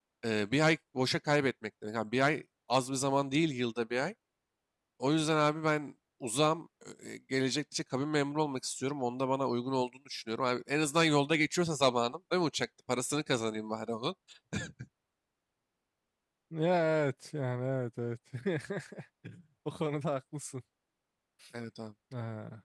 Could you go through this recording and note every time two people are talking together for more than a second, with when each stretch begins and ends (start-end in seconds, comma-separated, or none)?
none